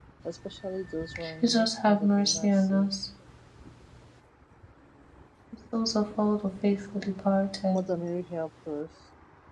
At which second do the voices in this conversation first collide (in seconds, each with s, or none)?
1.4 s